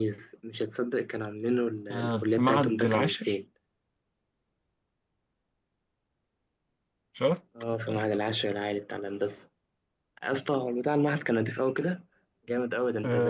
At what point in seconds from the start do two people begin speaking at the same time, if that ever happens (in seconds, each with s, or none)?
1.9 s